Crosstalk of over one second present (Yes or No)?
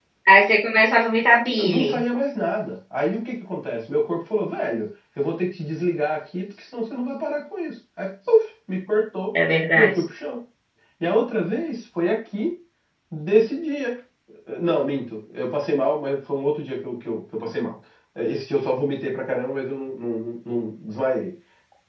No